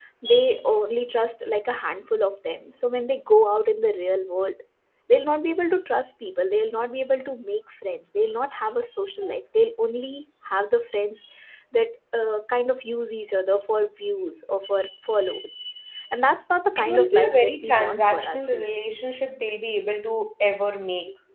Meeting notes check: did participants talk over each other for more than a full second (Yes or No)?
Yes